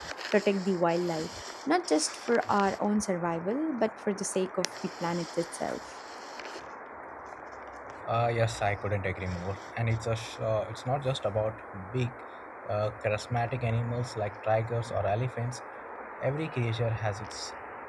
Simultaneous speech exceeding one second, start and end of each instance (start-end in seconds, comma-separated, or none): none